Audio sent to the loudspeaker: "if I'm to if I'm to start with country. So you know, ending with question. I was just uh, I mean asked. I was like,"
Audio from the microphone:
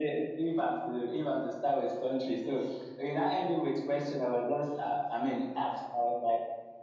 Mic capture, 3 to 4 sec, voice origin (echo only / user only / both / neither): echo only